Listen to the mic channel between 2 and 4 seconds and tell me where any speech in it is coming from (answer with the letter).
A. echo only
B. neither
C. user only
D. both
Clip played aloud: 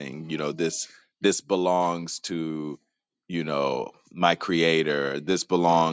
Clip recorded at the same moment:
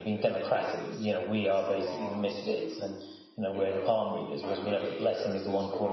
D